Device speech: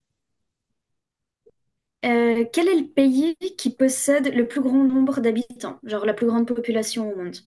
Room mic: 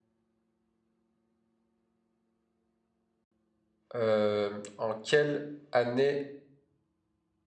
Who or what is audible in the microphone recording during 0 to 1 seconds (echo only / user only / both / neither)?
neither